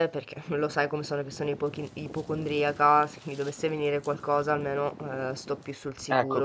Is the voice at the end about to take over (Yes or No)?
Yes